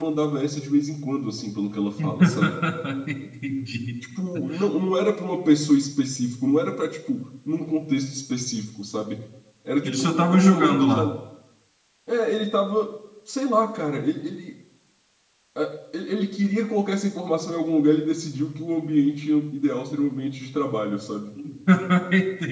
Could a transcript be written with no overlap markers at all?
No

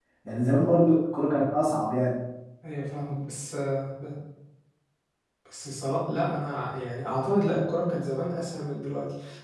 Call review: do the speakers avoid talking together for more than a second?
Yes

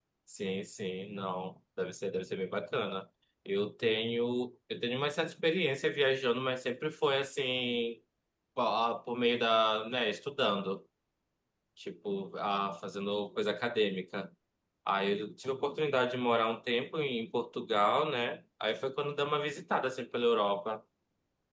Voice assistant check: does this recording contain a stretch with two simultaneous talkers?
No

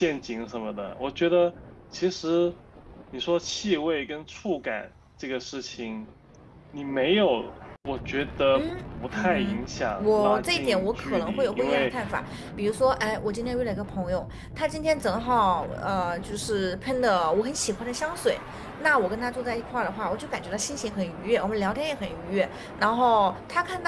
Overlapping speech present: Yes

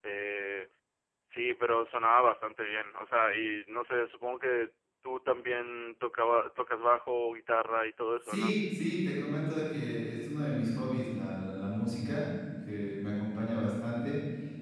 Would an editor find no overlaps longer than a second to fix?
Yes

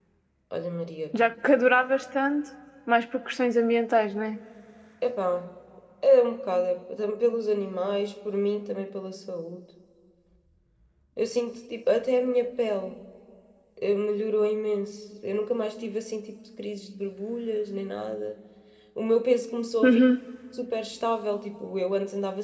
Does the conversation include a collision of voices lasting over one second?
No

